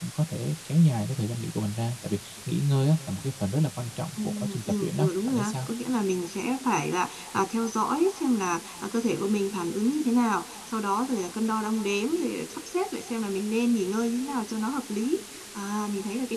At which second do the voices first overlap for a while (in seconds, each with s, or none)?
4.2 s